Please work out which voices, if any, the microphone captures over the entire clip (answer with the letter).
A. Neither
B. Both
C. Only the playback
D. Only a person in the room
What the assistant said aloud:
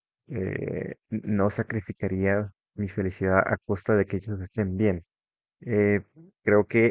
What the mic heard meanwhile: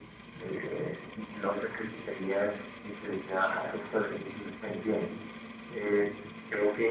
C